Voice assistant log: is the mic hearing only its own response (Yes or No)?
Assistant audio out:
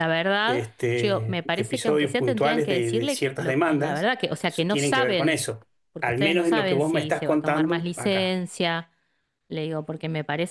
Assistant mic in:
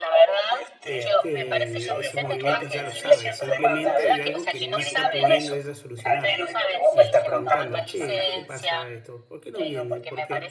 No